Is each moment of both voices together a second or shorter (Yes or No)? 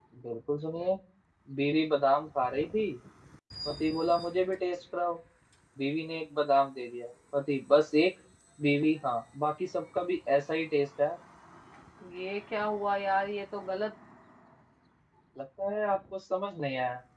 Yes